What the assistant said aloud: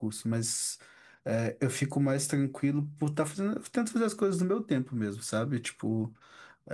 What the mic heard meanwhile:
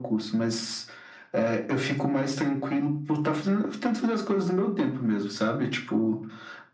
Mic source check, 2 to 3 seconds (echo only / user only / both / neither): echo only